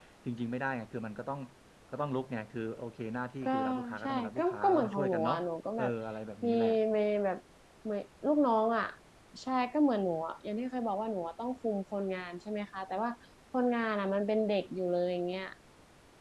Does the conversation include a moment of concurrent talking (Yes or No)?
Yes